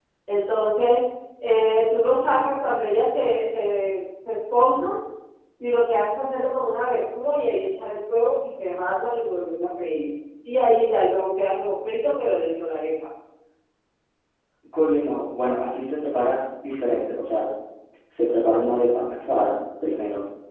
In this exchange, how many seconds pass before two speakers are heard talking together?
none

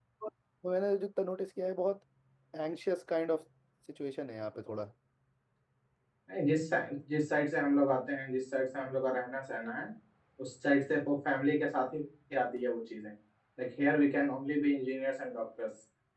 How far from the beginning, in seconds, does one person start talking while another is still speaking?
none

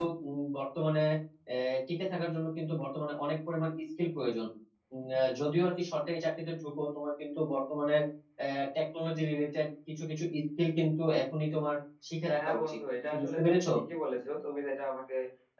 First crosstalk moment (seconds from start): 12.2 s

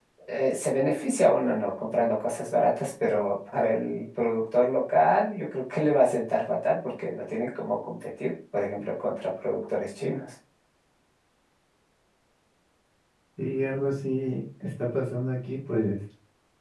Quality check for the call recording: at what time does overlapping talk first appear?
none

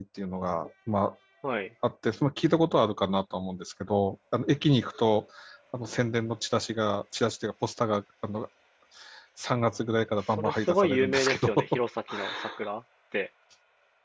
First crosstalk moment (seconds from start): 10.3 s

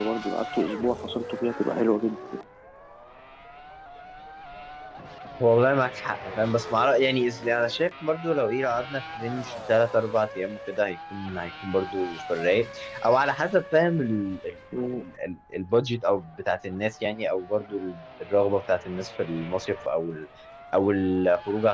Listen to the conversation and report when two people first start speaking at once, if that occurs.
none

